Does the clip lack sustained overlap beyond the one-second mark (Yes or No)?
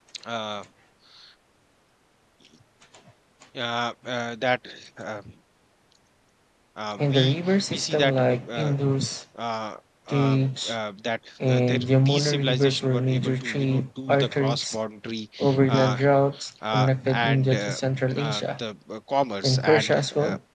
No